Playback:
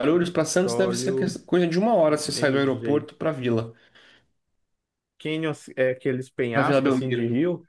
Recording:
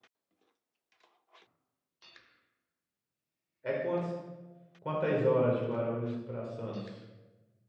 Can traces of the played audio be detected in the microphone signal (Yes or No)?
No